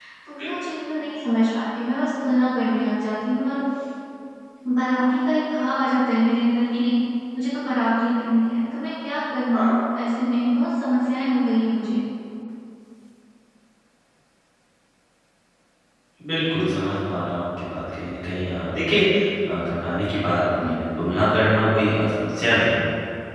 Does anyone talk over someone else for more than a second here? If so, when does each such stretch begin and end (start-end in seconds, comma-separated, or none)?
none